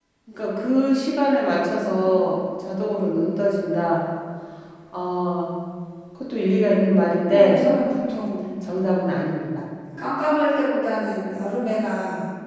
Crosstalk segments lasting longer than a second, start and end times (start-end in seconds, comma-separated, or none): none